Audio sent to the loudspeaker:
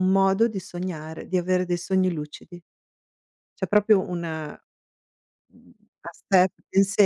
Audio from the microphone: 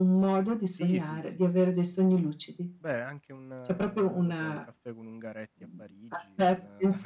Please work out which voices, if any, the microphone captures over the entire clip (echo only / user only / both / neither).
both